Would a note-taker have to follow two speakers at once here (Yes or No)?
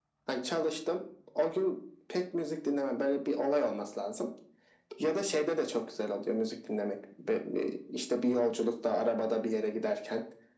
No